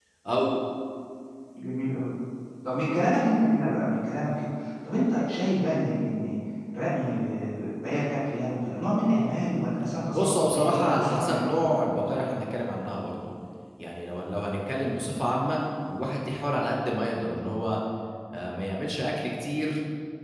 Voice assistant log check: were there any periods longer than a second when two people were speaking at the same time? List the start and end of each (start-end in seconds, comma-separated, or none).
10.1-11.7